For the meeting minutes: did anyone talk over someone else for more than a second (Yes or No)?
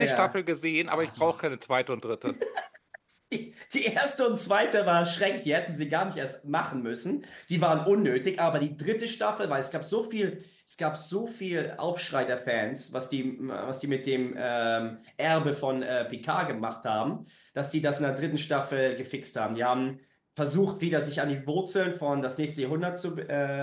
No